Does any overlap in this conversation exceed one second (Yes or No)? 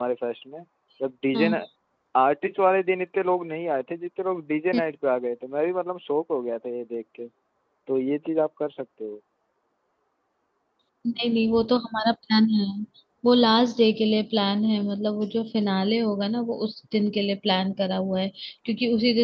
No